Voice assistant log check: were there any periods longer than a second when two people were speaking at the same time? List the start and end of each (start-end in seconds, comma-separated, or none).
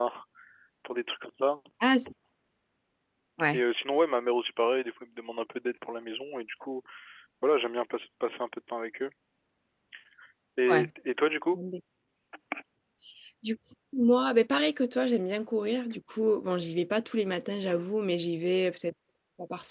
none